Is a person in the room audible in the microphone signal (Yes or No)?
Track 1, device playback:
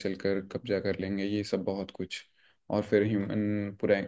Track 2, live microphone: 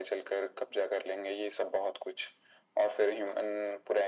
No